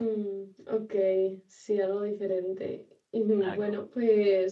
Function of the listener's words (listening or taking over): listening